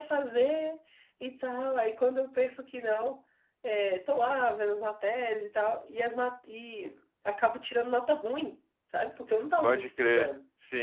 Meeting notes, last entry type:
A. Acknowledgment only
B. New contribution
B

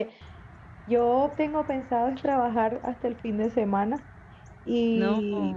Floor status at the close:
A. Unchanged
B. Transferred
A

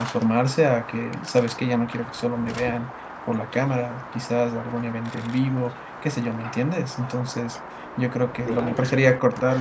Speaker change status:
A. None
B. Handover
A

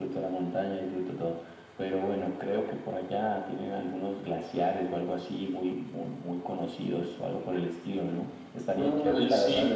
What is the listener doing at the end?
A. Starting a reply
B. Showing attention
B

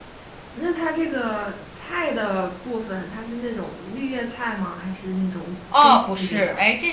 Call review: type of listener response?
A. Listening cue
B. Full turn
B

